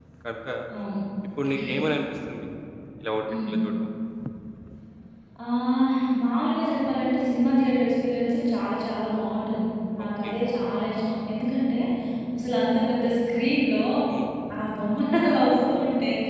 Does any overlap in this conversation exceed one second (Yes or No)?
No